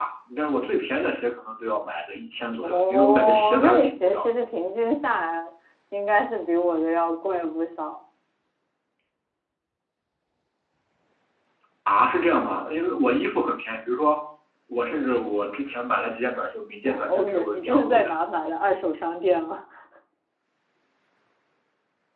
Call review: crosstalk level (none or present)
present